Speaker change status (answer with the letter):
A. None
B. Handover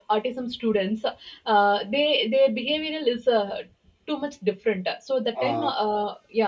A